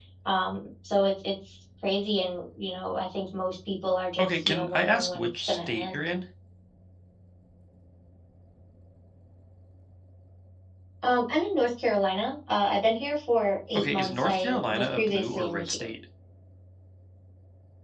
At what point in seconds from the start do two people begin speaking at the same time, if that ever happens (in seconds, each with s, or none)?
4.2 s